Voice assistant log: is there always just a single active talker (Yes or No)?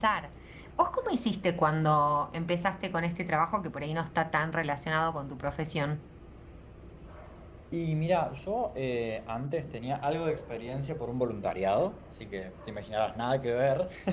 Yes